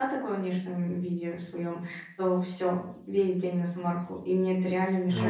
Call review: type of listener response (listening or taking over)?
listening